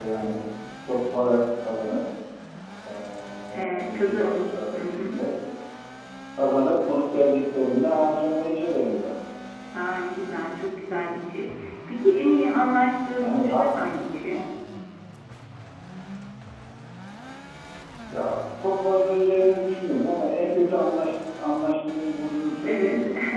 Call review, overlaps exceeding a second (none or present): present